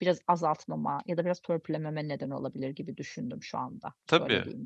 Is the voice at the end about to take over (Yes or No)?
Yes